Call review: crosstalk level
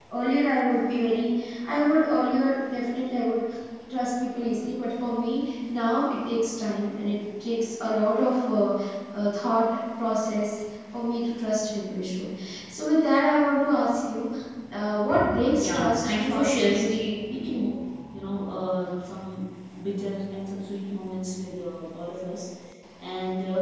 present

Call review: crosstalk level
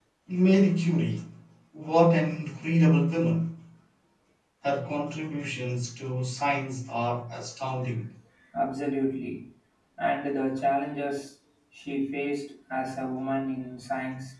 none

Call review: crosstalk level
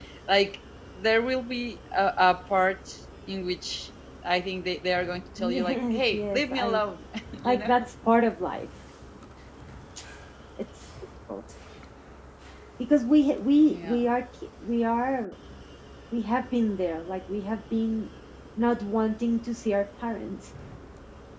present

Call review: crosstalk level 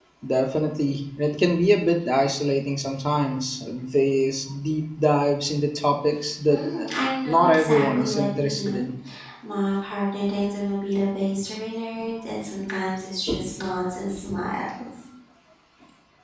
present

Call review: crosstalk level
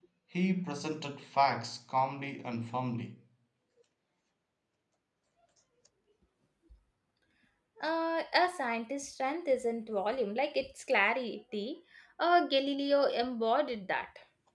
none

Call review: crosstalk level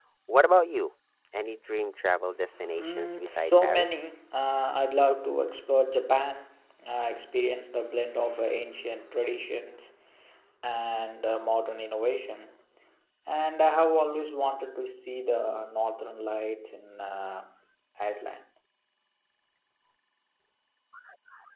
present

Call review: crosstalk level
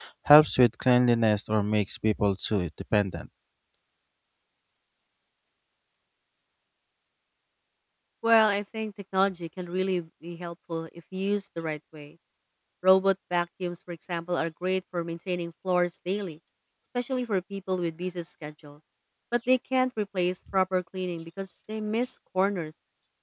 none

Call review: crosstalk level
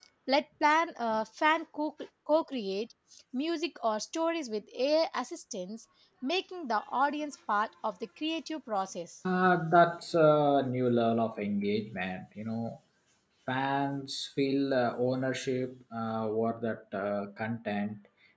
none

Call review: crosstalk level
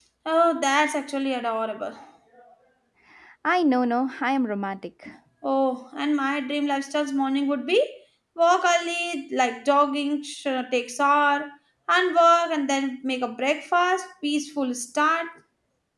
none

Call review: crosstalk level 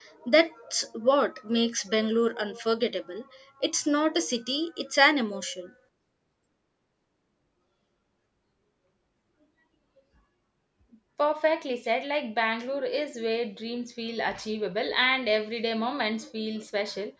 none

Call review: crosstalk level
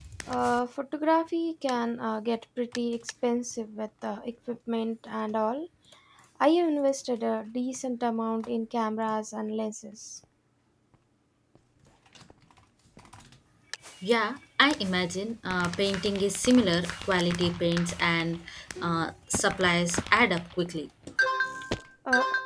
none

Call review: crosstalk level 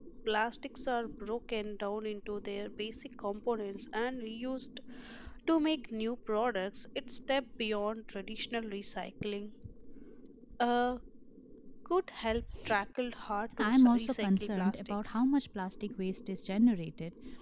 present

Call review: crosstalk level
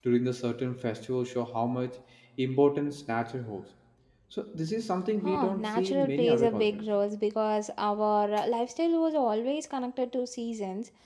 present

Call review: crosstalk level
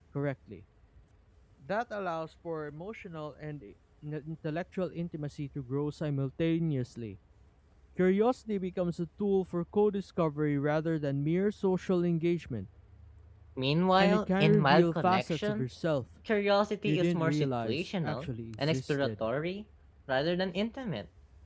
present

